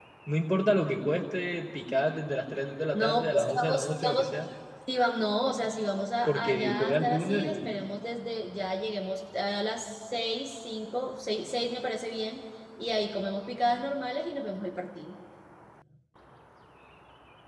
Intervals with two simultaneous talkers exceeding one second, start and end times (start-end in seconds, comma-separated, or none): 2.9-4.5, 6.2-7.7